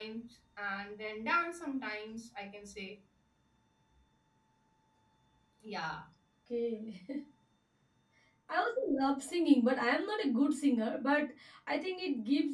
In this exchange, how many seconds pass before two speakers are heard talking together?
none

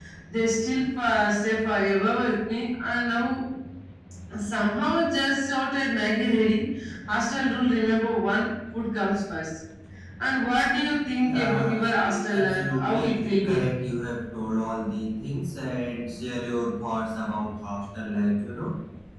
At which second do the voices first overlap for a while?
11.2 s

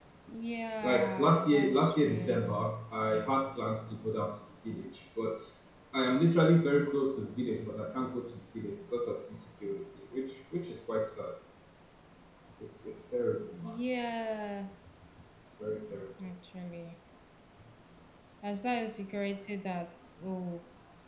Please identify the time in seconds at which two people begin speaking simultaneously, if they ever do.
0.8 s

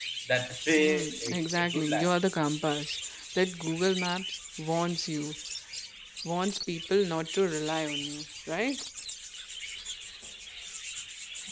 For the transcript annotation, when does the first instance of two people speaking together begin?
0.8 s

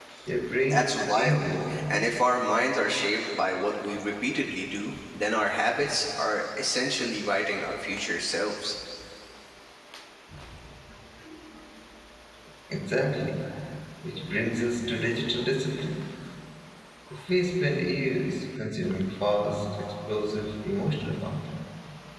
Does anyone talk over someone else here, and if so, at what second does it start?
0.6 s

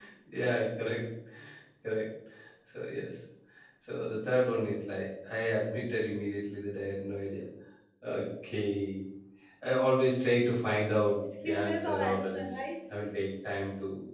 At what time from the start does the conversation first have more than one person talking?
11.1 s

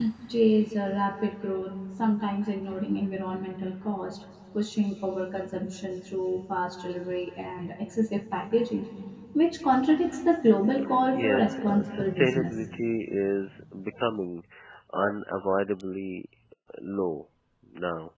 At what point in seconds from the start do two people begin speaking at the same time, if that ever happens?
11.1 s

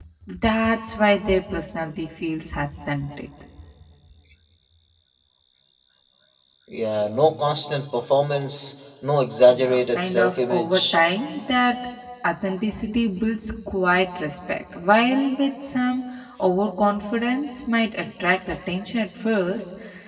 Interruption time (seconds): 9.5 s

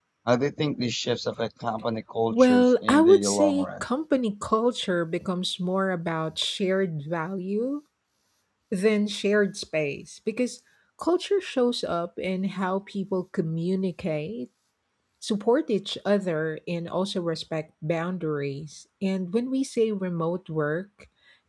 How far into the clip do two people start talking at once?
2.3 s

